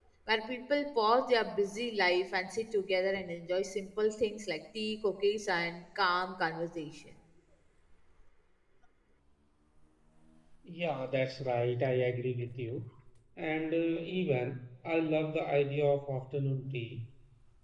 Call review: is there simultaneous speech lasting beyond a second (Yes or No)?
No